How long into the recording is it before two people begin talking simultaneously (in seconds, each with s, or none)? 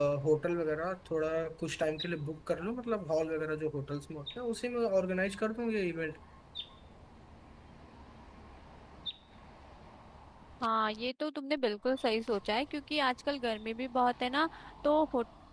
none